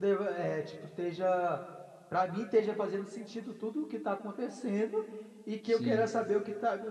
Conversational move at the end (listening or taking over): listening